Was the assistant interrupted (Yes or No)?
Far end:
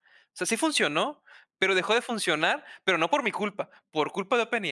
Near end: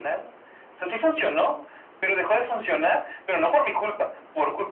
No